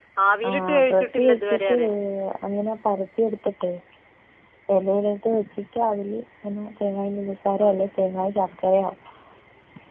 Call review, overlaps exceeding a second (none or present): present